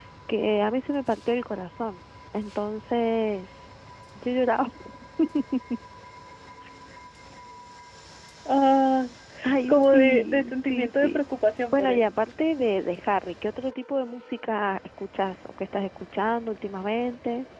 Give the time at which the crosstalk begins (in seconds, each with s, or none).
9.7 s